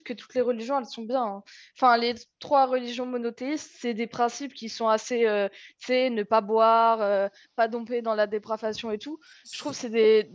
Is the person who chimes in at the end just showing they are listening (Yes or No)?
Yes